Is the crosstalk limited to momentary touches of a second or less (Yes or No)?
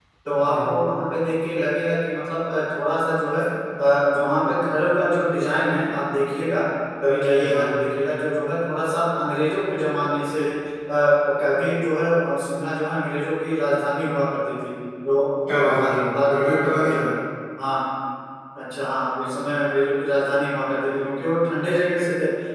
No